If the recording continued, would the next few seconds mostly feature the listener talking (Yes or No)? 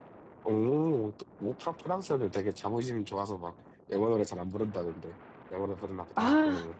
Yes